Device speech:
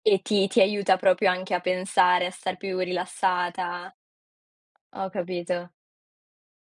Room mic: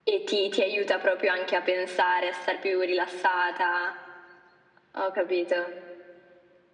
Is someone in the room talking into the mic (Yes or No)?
No